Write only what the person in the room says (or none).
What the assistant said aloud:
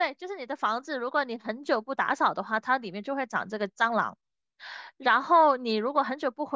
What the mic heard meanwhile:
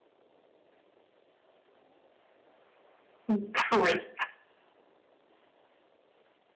人。